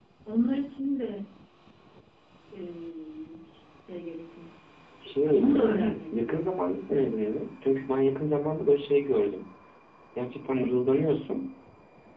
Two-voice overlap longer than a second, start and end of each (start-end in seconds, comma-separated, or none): 5.3-6.6